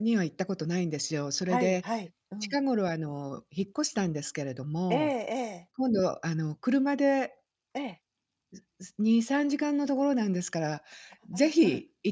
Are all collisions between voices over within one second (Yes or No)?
Yes